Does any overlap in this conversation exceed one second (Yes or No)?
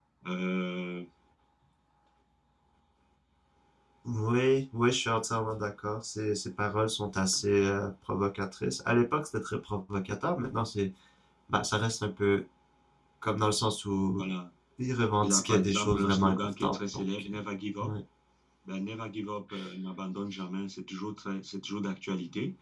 Yes